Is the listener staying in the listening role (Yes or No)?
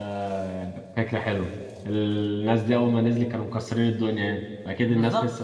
No